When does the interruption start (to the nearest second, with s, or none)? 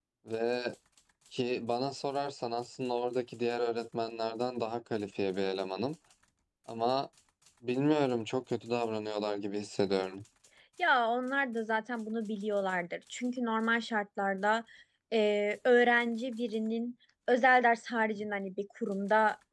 none